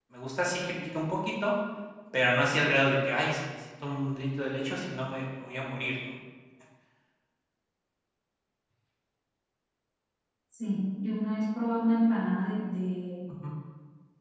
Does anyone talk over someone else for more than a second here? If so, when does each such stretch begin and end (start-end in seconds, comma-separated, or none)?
none